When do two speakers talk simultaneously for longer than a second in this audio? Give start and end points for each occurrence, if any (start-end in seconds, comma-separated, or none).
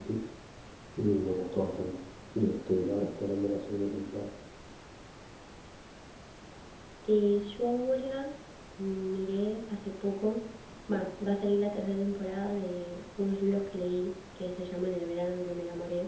none